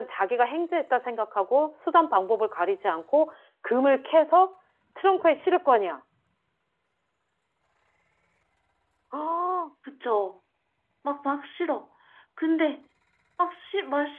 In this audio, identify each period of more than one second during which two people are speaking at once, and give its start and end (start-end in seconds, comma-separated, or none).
none